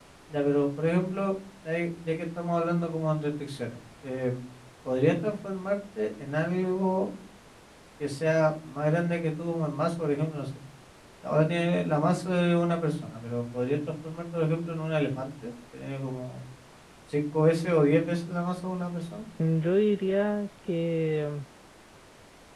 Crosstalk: none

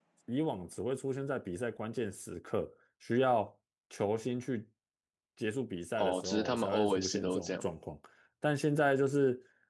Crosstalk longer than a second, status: present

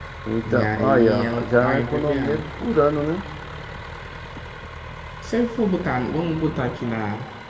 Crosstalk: present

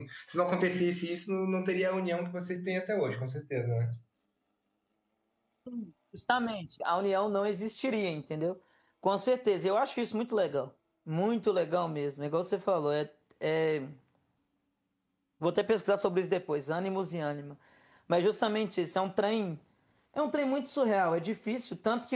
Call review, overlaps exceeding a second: none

